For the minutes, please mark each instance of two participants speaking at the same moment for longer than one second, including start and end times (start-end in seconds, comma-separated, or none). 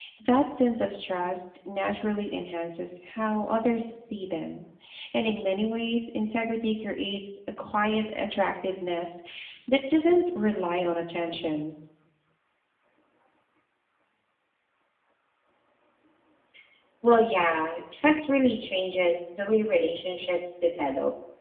none